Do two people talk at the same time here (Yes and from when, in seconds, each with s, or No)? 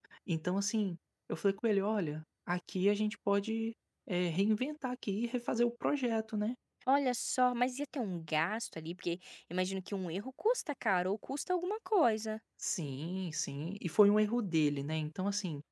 No